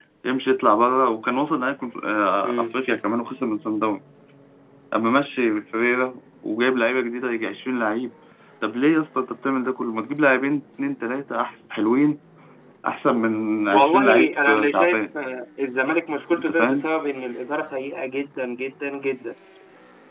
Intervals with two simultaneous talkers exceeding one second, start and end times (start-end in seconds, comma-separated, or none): 13.7-15.0